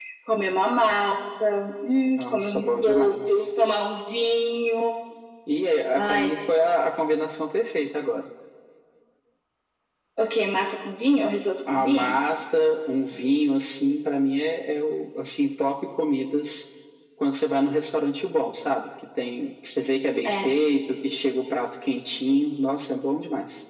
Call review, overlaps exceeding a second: present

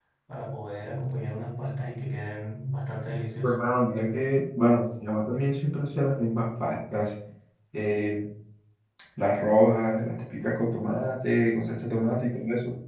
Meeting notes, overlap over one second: none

